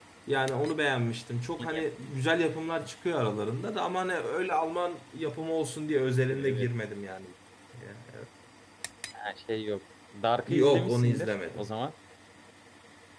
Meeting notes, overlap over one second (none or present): present